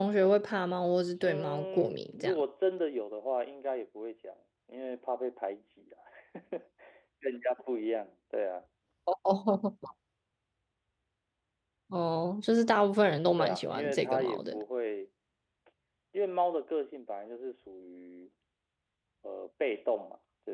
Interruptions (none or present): present